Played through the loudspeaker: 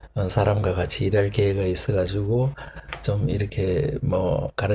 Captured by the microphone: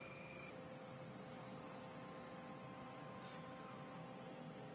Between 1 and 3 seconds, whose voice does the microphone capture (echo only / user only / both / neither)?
neither